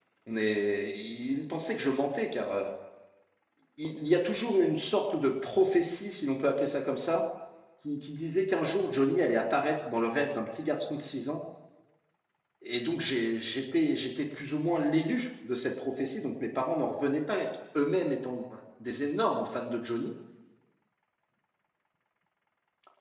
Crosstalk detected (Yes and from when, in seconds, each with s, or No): No